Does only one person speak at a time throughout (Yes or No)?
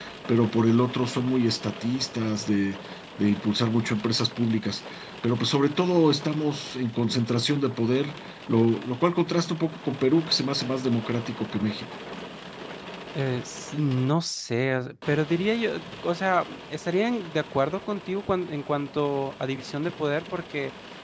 Yes